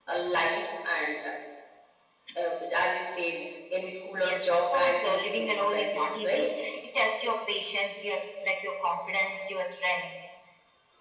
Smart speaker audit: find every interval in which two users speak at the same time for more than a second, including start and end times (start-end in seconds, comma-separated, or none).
4.2-6.5